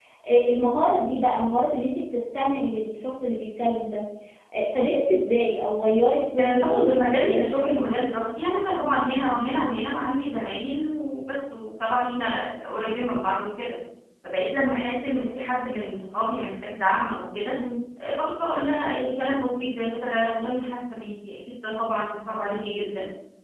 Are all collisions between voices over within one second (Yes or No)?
No